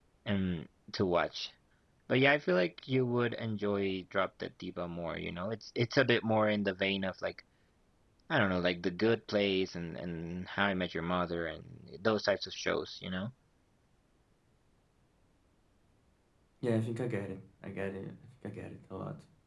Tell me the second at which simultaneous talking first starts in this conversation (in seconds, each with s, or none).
none